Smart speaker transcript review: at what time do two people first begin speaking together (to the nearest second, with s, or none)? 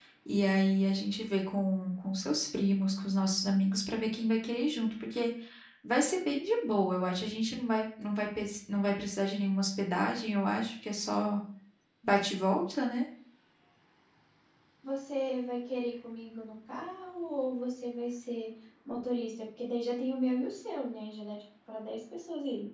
none